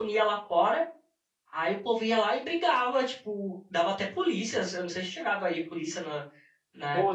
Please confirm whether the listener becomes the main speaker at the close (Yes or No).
Yes